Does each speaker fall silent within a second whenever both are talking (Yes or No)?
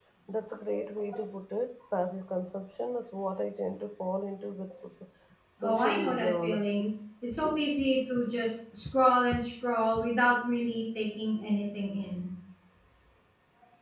No